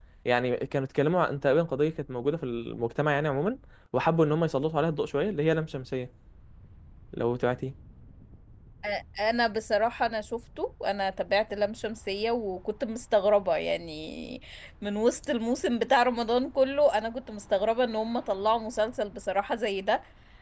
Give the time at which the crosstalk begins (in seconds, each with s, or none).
none